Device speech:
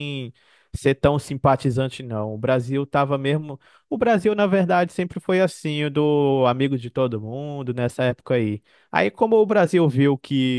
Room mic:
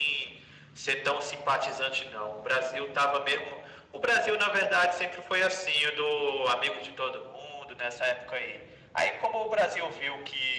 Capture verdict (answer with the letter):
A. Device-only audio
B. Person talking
A